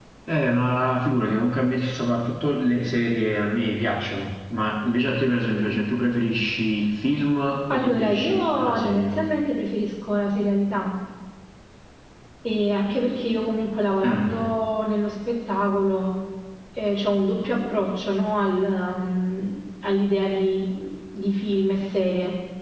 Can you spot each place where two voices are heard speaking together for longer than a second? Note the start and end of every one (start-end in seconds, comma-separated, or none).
7.7-9.1